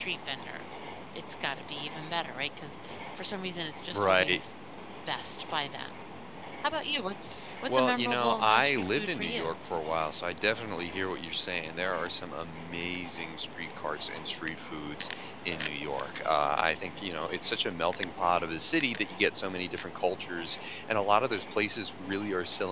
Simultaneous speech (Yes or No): Yes